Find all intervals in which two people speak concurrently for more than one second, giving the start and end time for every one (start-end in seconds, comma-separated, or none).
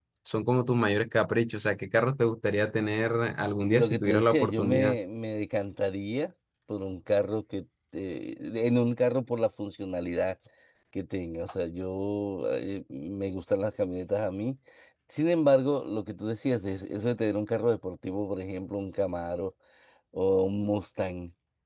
3.6-5.0